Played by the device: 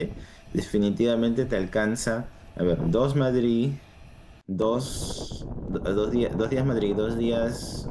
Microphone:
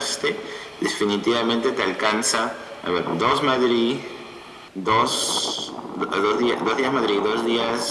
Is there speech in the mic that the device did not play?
No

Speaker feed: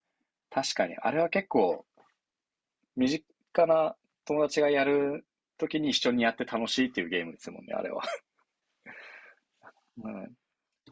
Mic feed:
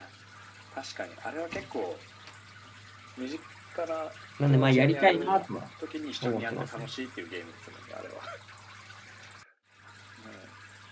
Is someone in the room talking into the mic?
Yes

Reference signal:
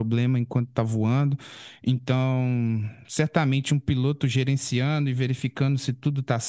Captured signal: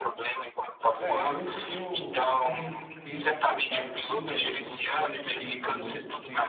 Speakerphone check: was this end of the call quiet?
No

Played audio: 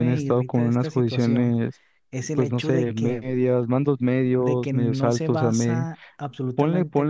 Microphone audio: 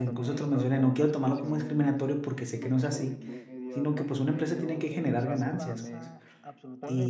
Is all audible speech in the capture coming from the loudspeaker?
No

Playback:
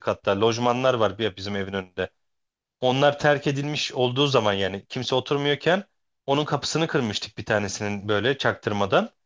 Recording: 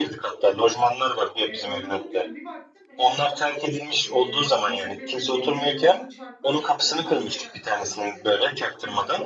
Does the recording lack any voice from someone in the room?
No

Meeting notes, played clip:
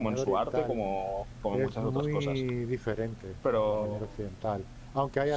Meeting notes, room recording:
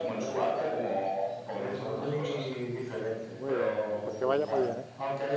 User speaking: Yes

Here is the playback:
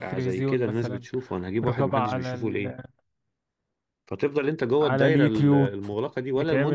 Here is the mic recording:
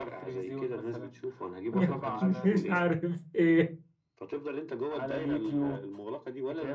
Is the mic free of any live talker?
No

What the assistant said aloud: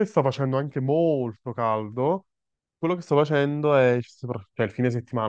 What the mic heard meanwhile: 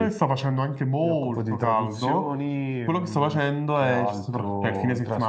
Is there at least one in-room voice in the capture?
Yes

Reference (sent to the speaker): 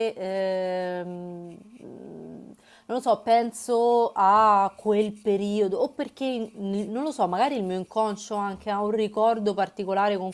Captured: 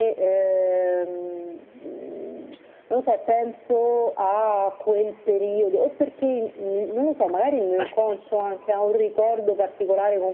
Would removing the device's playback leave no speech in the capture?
Yes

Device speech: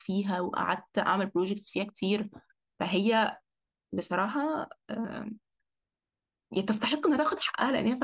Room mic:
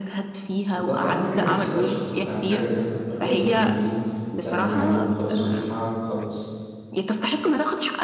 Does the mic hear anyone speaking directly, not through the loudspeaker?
Yes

